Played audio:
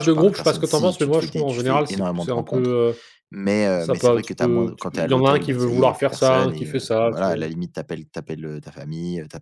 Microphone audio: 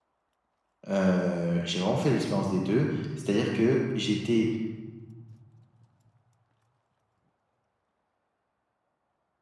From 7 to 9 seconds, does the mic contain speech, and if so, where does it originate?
neither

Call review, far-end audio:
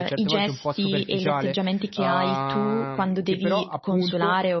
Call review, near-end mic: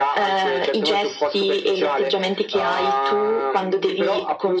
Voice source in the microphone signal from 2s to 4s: echo only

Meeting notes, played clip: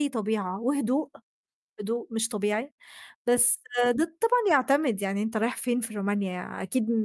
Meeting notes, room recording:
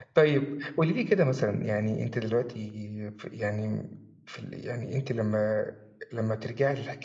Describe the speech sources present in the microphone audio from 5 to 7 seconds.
user only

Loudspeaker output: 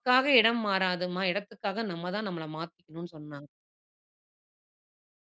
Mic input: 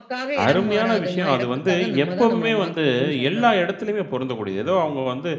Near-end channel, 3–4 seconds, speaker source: both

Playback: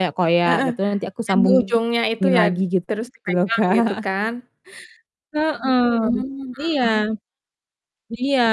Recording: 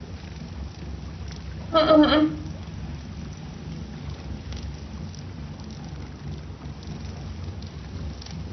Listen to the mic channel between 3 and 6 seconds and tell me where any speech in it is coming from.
neither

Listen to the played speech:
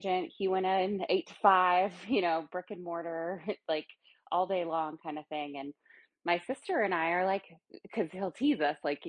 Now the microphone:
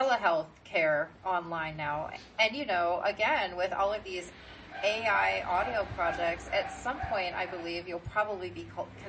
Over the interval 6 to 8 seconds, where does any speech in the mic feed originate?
user only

